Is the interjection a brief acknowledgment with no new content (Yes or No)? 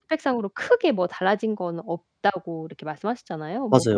Yes